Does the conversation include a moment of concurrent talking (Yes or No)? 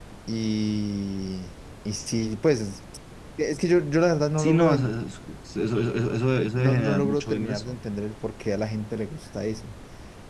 Yes